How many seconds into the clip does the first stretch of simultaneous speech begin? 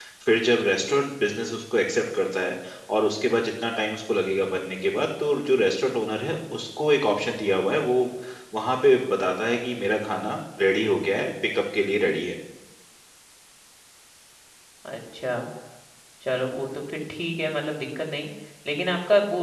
none

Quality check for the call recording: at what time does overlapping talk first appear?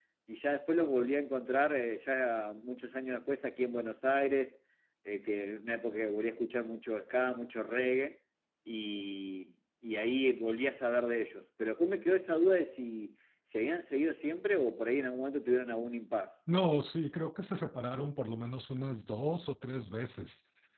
none

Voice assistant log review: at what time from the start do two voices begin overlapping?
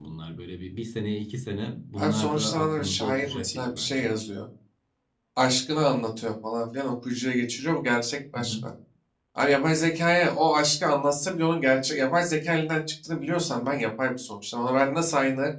2.0 s

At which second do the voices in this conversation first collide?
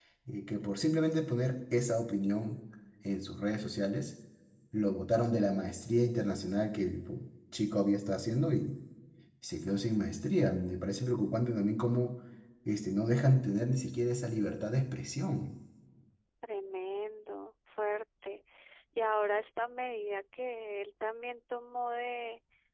none

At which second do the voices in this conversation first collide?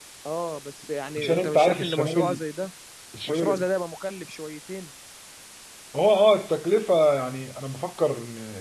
1.2 s

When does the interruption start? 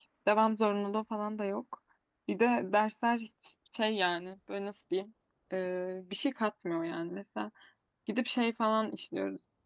none

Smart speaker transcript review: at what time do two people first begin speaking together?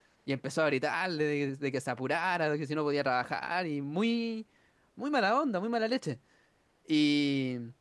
none

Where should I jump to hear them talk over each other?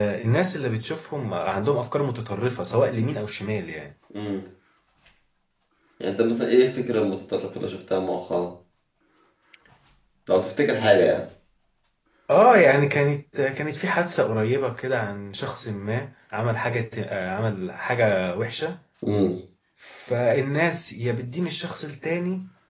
none

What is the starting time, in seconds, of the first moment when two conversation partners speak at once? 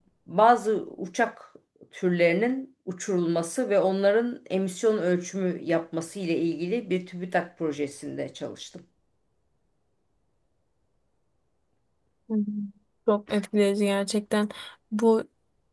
none

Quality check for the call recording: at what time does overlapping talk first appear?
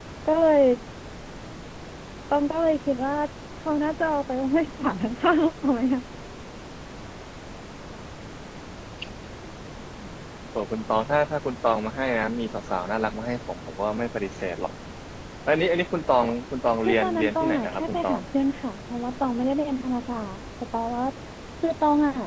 16.8 s

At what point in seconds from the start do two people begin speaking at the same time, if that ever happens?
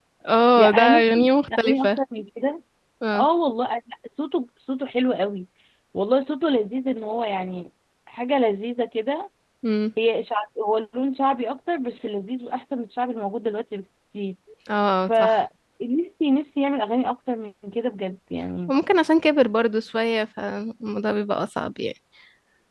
0.6 s

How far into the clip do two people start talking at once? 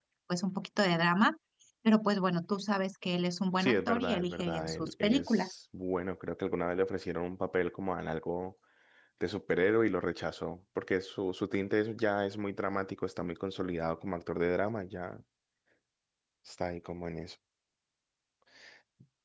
3.6 s

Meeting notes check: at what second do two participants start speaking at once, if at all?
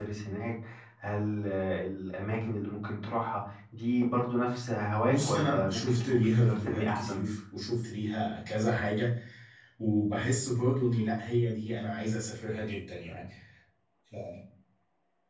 5.1 s

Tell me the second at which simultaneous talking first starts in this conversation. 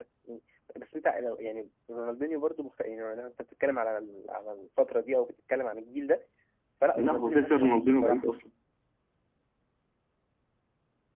7.0 s

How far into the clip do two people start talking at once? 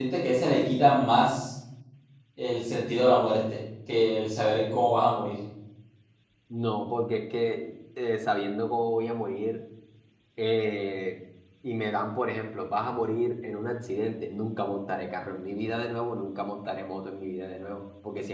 none

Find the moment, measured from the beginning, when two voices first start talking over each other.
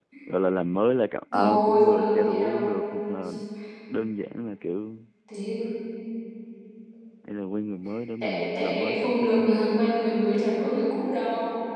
1.3 s

